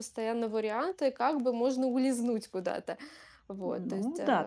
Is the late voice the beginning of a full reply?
Yes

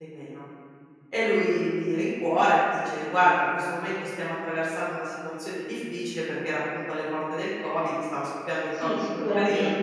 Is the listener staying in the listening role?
No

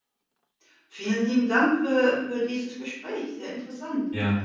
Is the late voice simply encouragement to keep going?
No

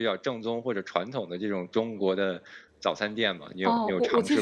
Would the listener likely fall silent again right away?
No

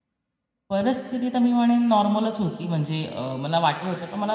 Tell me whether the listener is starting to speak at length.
No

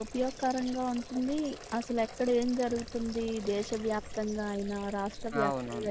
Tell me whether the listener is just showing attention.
Yes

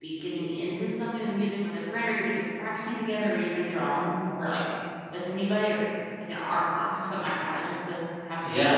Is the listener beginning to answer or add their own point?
Yes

